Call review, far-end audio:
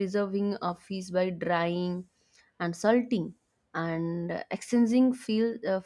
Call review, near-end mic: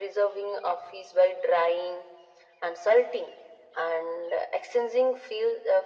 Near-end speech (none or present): none